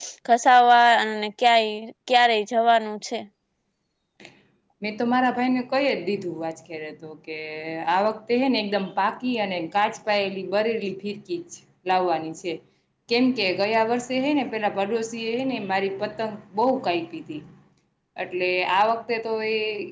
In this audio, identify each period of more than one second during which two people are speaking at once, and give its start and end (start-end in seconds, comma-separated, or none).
none